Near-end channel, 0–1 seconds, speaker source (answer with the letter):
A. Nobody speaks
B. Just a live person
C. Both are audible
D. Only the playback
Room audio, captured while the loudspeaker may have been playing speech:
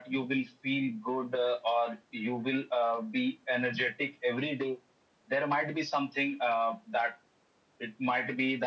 D